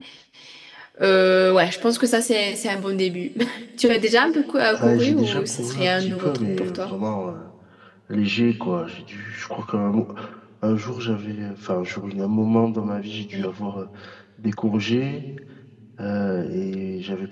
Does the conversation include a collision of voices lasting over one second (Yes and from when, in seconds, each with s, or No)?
Yes, from 4.7 s